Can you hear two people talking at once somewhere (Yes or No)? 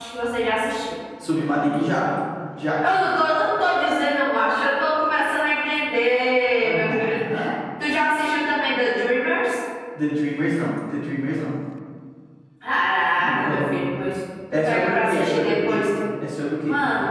Yes